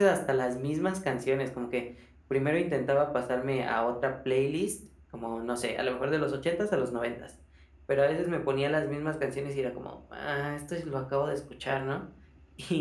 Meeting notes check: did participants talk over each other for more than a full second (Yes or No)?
No